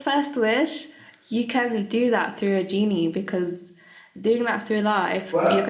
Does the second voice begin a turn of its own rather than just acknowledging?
Yes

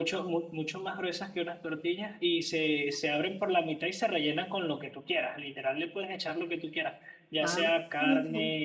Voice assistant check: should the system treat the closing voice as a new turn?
No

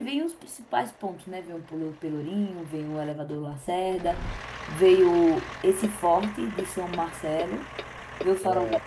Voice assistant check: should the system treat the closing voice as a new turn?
No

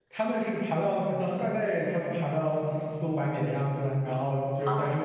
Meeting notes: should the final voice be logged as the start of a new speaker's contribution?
No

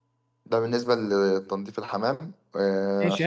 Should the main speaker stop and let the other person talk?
Yes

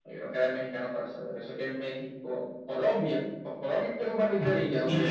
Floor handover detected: Yes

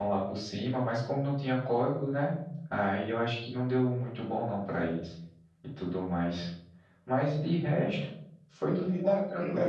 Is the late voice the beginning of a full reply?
Yes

